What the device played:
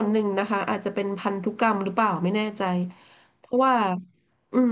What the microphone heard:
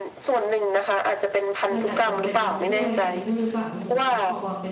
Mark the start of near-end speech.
1.7 s

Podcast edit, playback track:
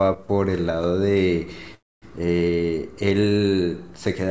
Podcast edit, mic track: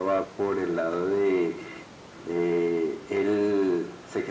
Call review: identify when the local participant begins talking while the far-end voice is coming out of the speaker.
none

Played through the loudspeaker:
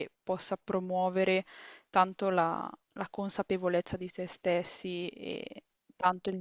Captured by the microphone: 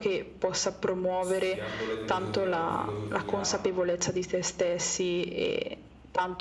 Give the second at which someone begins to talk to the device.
1.2 s

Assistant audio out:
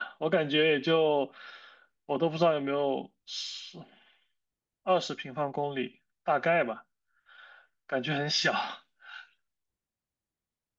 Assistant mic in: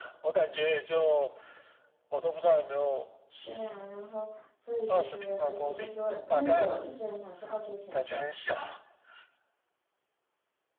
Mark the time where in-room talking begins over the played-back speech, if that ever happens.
3.4 s

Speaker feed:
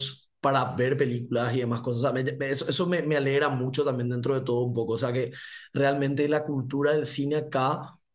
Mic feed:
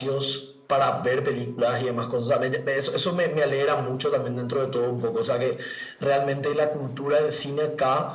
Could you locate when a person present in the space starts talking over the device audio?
none

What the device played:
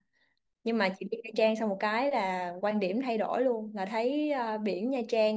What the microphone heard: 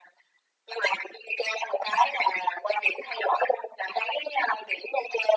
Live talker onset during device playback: none

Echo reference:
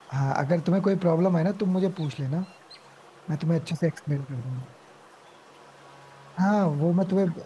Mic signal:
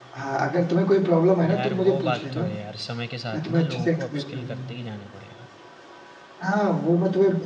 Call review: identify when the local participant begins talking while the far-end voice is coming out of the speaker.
1.5 s

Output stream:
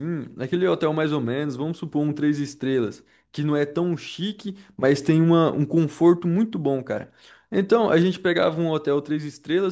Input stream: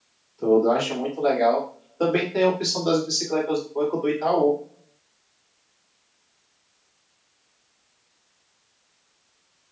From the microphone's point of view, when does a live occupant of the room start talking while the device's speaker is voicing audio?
0.3 s

